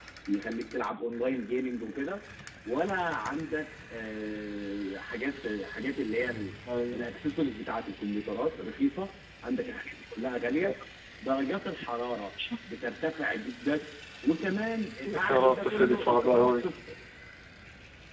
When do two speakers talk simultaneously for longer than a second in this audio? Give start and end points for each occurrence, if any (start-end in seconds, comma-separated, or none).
15.3-16.7